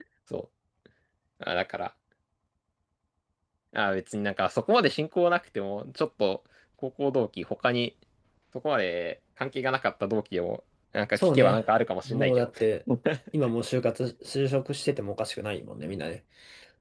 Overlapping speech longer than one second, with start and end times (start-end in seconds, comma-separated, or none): none